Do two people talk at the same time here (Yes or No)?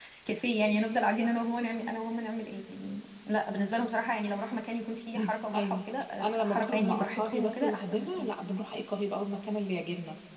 Yes